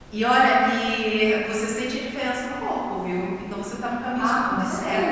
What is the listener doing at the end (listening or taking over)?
taking over